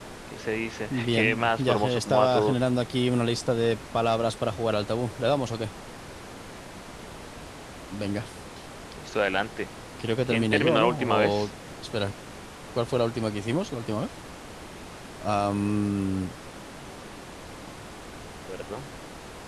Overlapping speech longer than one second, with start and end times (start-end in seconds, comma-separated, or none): 0.9-2.6, 10.3-11.5